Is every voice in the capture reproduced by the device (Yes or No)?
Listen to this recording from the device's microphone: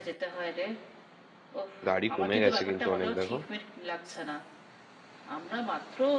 No